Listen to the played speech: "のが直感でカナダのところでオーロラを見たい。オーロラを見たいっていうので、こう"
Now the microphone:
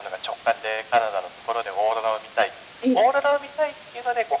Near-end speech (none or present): present